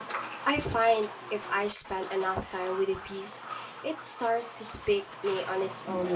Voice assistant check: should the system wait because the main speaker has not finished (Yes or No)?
No